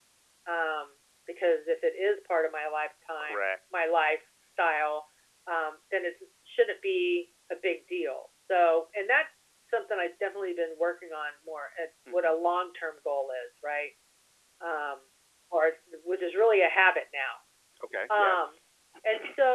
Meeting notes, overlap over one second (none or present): none